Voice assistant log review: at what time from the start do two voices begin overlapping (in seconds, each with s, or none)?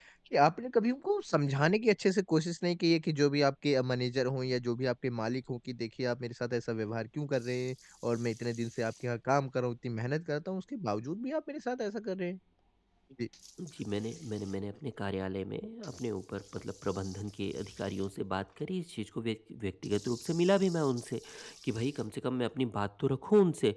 none